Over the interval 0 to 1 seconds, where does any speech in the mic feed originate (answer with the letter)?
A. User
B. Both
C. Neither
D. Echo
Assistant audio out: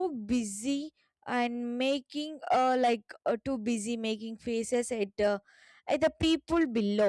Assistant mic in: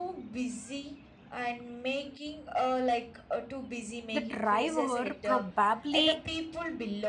D